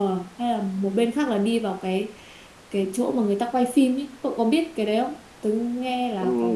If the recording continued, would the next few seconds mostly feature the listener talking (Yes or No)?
Yes